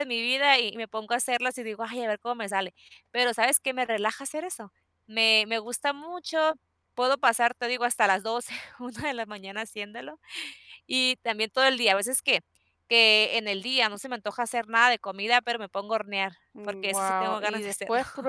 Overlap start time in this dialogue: 16.6 s

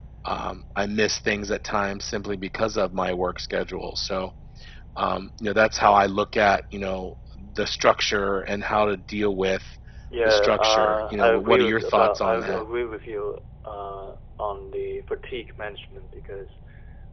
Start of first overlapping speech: 10.2 s

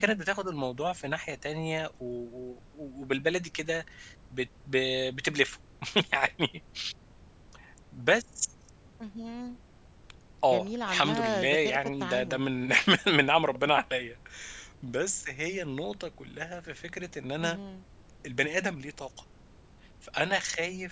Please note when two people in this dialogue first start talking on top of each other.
10.5 s

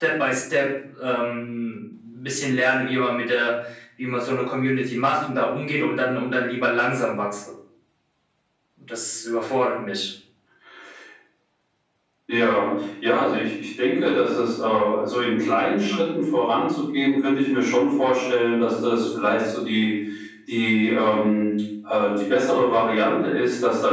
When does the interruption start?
none

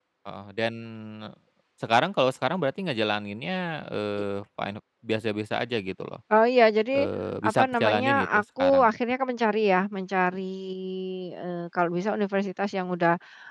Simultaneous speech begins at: 7.4 s

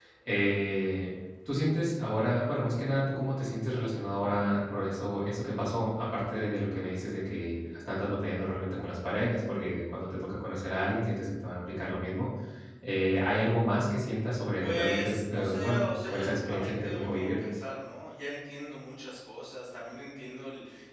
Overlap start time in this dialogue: 14.6 s

